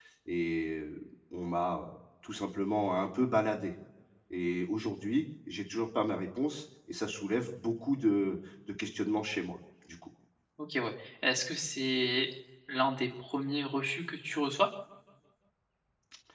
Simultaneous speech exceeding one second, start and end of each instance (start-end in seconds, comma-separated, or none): none